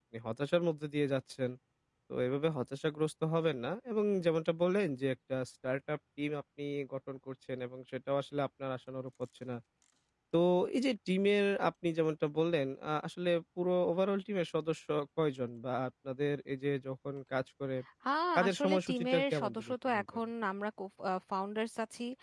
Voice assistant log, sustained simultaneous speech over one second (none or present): present